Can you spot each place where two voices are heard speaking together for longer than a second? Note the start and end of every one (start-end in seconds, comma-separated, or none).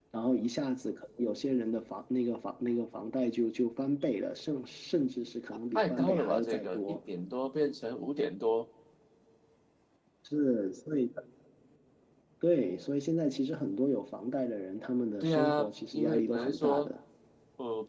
5.8-7.0, 15.2-16.9